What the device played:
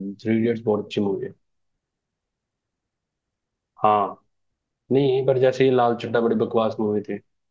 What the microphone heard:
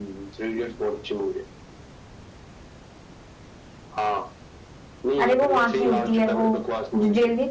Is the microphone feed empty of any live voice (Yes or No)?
No